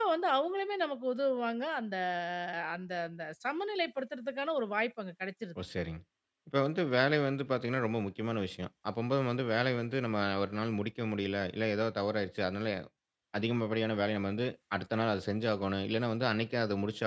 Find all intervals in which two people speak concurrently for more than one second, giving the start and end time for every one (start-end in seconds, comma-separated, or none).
none